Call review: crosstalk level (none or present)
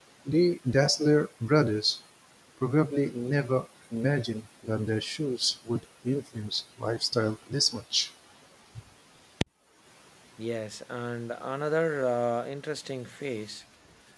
none